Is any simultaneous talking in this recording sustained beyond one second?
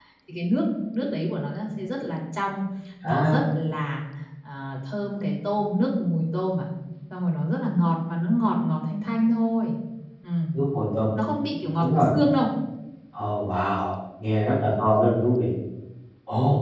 No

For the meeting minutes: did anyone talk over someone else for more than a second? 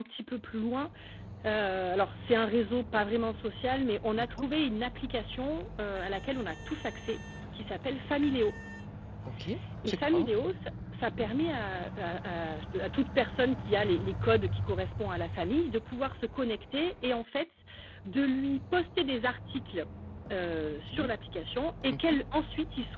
No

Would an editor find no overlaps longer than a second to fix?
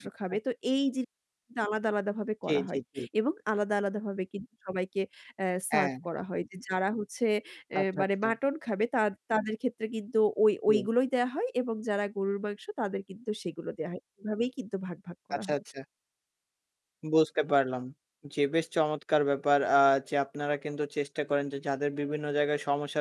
Yes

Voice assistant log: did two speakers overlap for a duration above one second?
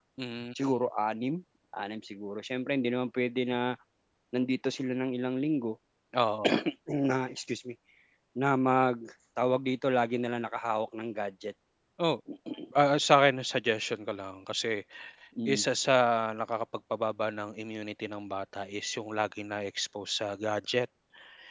No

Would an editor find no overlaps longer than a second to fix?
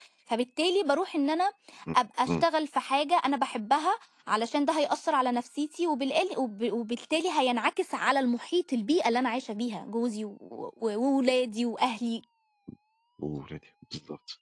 Yes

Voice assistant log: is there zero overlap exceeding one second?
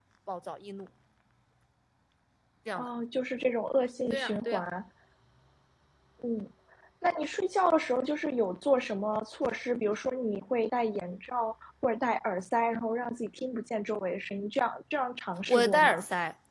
Yes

